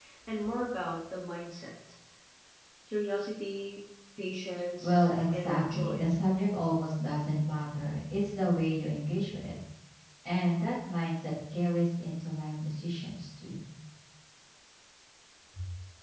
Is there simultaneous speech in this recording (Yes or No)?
Yes